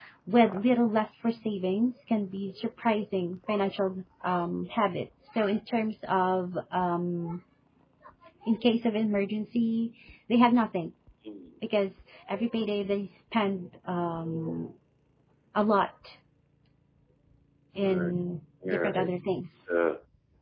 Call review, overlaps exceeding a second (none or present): none